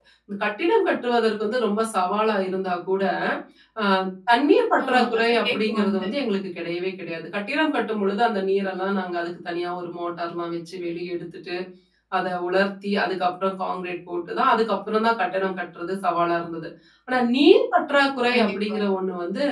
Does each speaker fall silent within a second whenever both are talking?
No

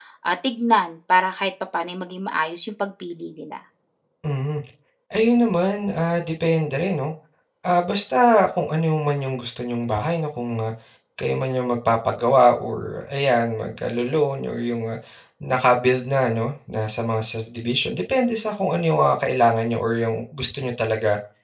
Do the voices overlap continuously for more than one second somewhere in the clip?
No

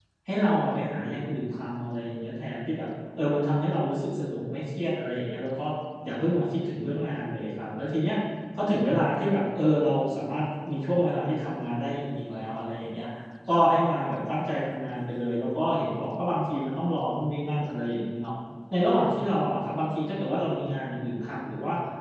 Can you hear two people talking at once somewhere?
No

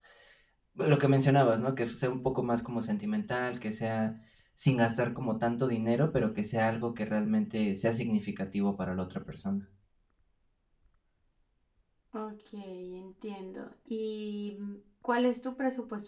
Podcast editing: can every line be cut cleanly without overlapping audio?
Yes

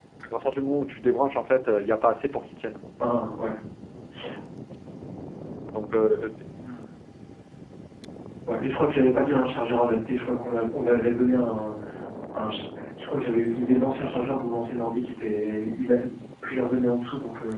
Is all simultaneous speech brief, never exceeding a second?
Yes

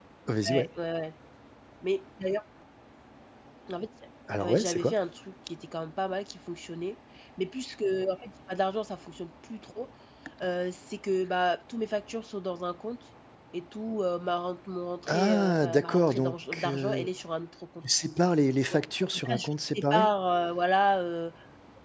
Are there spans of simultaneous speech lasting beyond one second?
Yes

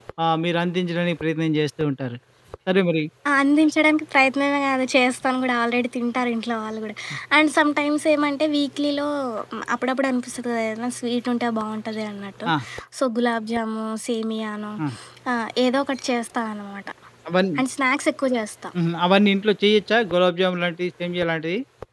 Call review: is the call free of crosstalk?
Yes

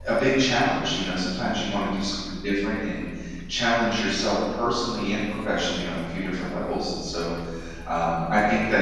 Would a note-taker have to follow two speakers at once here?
No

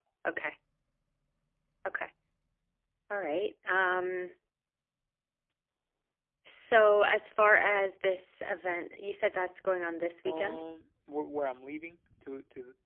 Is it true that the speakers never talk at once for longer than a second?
Yes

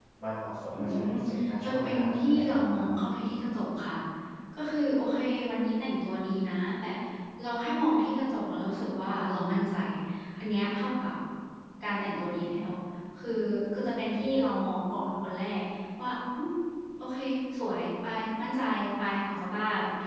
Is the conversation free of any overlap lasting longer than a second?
No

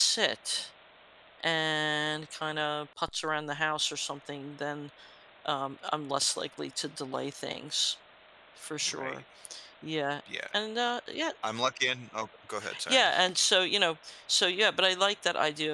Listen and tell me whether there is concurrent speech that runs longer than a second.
No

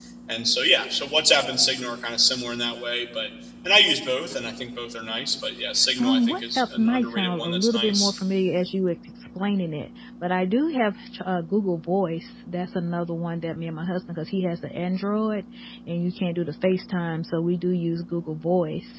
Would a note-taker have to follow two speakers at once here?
Yes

